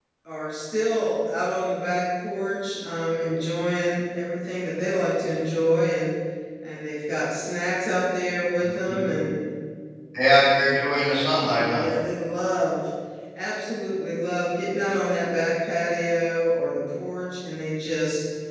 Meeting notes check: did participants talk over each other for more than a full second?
No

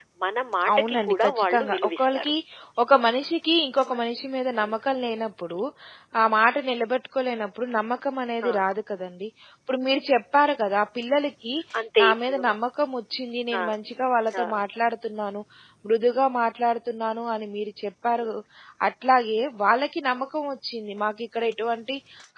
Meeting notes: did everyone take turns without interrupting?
No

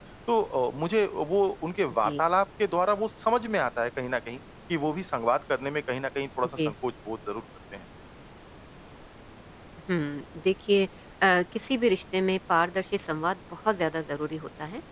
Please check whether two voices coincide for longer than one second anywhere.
No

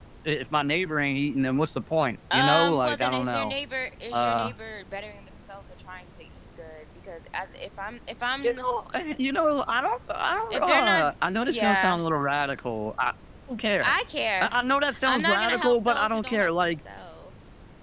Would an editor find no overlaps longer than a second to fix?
No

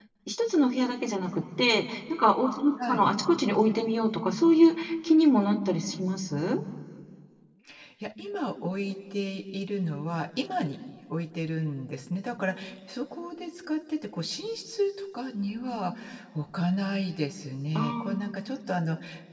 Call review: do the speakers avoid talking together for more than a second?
Yes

